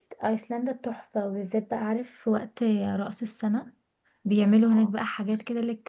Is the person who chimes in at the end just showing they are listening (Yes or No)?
Yes